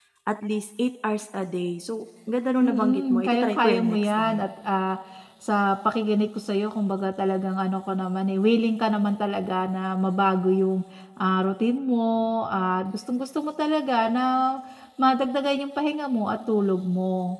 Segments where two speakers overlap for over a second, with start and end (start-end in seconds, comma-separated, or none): 2.6-4.5